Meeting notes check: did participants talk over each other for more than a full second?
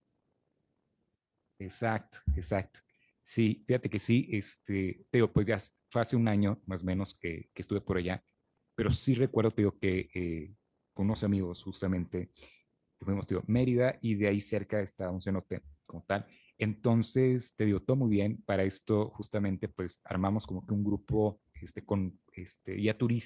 No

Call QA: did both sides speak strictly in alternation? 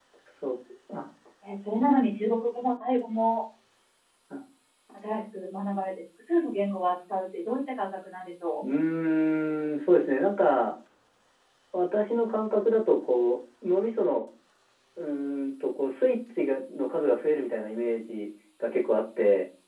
Yes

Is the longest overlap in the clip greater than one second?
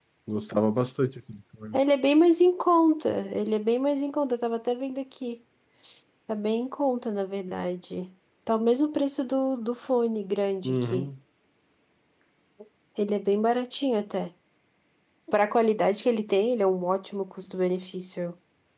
No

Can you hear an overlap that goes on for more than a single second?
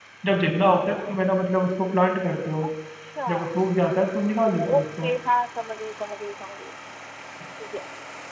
No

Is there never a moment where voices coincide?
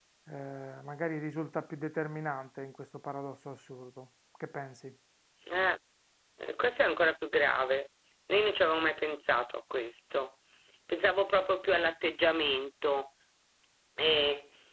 Yes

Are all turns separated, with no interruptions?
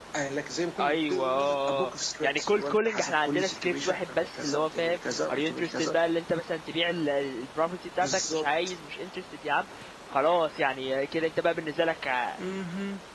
No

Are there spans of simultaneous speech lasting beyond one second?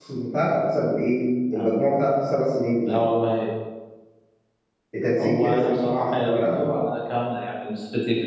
Yes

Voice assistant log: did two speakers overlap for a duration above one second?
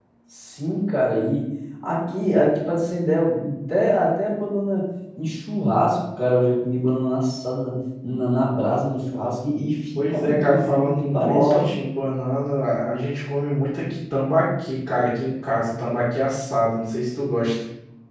Yes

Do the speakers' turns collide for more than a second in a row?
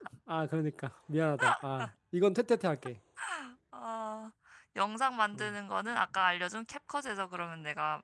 No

